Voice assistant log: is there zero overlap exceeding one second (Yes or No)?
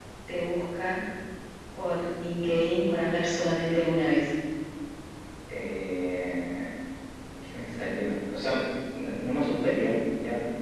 Yes